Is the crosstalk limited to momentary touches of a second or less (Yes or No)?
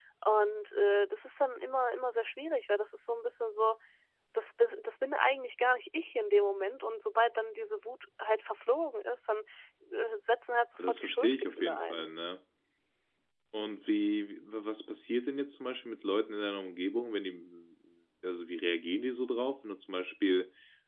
No